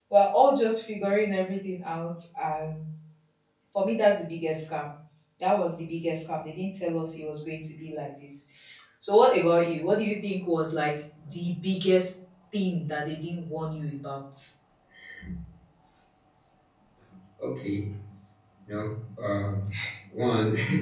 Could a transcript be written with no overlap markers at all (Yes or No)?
Yes